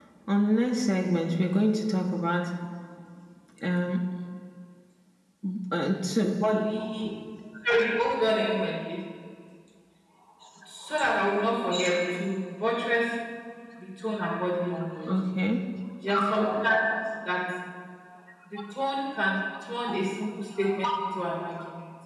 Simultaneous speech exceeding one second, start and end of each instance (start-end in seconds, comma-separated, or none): none